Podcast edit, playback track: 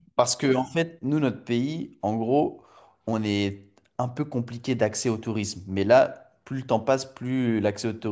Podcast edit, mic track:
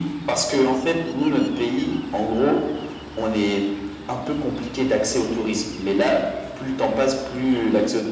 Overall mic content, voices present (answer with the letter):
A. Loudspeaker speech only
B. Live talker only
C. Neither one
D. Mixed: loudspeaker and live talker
A